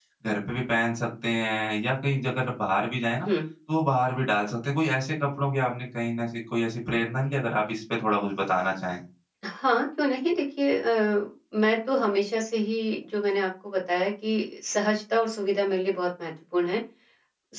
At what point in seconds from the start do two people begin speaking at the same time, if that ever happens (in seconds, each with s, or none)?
none